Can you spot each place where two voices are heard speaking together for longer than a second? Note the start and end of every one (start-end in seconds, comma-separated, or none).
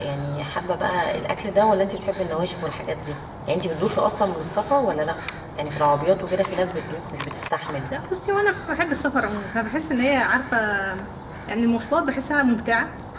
none